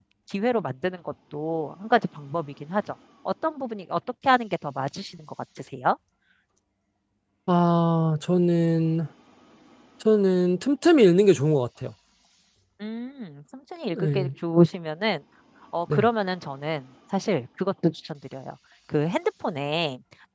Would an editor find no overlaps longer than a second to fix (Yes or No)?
Yes